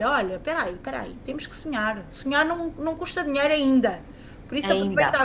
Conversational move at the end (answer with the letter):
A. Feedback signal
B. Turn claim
A